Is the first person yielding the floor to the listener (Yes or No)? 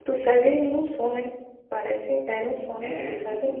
Yes